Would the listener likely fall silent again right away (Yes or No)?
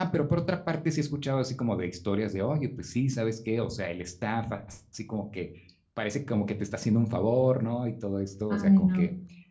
Yes